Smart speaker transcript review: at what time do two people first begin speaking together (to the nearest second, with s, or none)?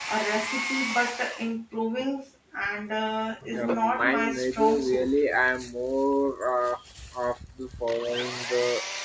4 s